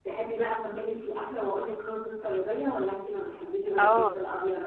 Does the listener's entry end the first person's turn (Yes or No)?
Yes